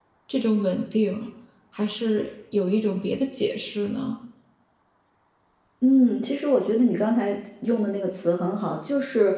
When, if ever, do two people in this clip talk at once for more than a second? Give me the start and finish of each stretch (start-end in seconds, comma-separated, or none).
none